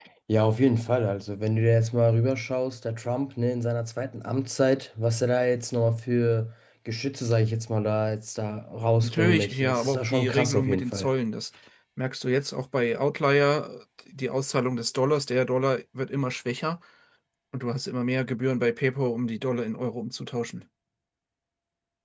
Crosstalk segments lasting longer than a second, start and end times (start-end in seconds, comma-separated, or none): 9.0-11.1